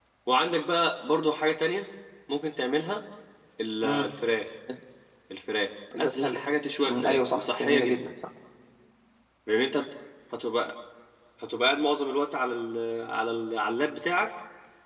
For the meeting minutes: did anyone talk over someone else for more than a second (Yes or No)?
Yes